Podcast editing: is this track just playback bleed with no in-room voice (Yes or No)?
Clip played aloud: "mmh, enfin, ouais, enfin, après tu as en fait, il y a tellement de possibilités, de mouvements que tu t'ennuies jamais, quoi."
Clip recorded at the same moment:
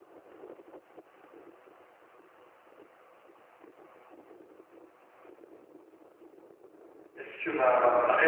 No